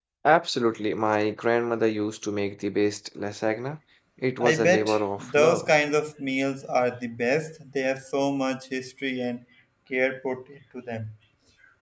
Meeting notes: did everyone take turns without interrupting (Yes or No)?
No